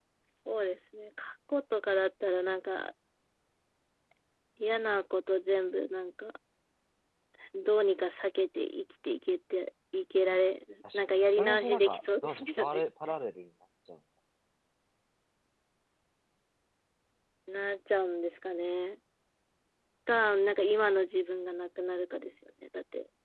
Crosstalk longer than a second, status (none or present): present